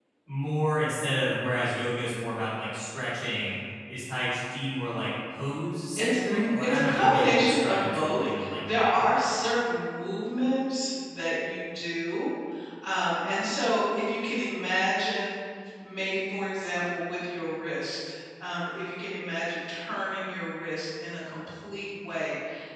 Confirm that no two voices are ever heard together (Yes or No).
No